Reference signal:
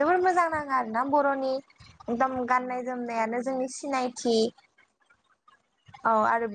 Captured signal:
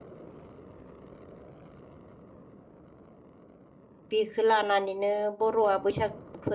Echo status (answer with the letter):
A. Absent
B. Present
A